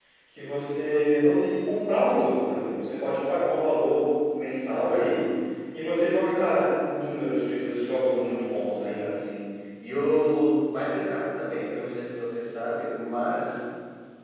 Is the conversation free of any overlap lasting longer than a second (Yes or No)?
Yes